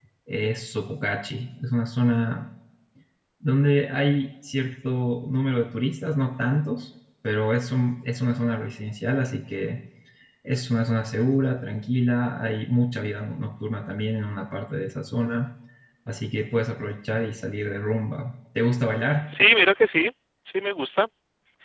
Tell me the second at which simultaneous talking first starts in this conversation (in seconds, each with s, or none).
none